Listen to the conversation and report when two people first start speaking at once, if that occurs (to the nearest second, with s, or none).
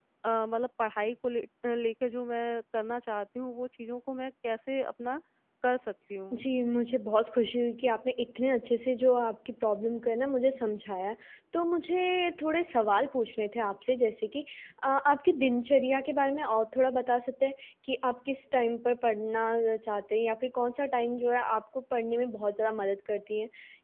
none